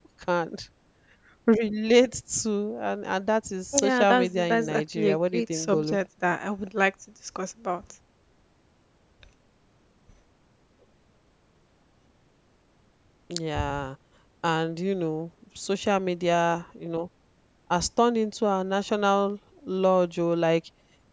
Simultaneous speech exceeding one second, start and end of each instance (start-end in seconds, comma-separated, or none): 3.8-6.0